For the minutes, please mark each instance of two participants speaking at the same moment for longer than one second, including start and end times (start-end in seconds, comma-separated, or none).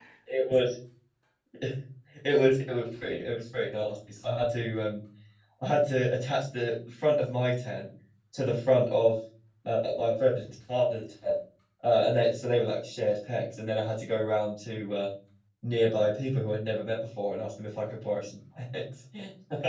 none